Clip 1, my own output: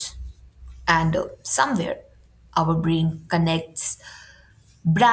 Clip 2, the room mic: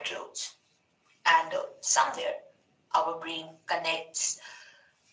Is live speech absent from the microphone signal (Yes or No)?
Yes